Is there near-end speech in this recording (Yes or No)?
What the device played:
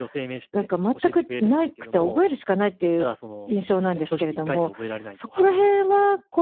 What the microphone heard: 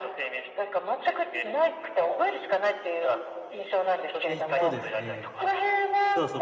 Yes